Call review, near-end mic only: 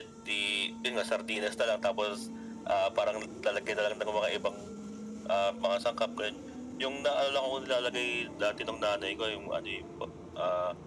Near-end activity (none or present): none